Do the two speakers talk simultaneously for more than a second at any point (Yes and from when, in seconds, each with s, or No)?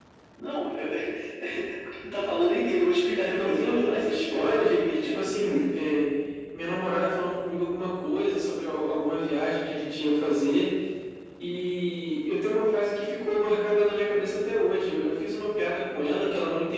Yes, from 3.2 s